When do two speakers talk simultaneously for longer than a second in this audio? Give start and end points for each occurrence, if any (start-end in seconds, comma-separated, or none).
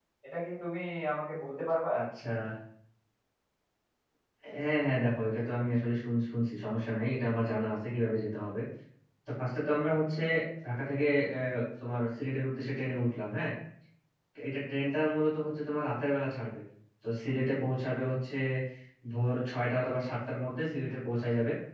none